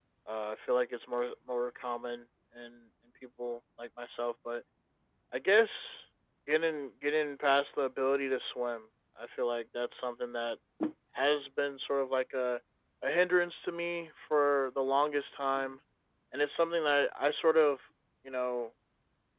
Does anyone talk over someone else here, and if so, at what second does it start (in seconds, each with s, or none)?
none